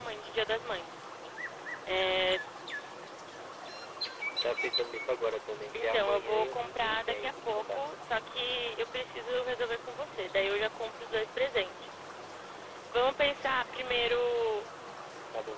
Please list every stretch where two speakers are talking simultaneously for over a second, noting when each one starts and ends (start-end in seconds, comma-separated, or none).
5.7-7.8